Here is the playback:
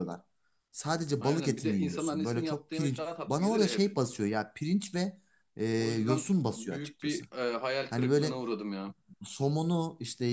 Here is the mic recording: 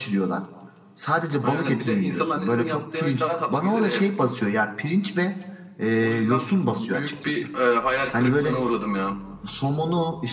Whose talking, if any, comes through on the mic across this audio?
echo only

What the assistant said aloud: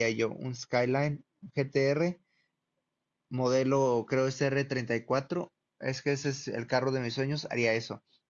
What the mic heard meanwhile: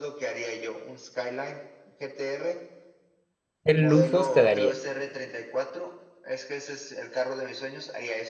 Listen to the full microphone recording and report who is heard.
both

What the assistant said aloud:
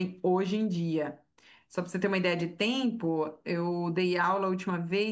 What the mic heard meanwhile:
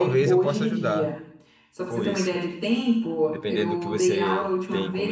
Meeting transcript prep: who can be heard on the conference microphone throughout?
both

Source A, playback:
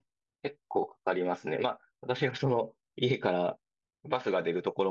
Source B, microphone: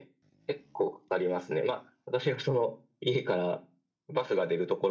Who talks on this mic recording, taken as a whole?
echo only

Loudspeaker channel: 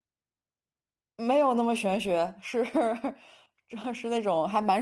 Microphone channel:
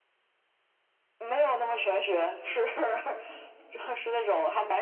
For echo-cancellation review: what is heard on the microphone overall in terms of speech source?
echo only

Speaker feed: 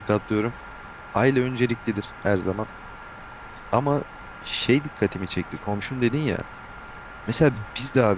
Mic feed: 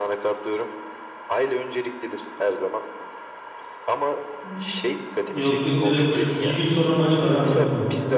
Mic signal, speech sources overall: both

